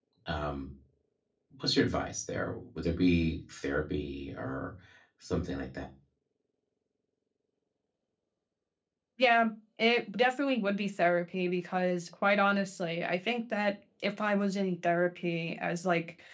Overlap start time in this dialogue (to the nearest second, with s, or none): none